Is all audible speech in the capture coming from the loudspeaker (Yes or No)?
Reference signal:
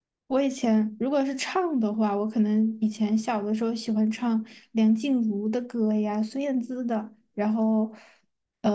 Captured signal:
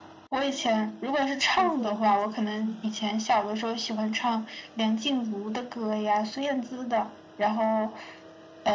No